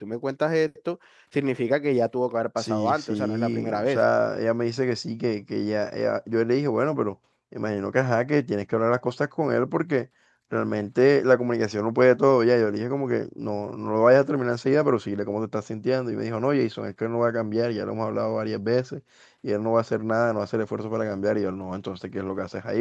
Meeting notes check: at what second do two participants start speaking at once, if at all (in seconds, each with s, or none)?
2.6 s